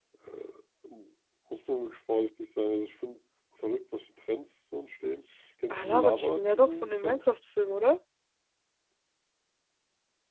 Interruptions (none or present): present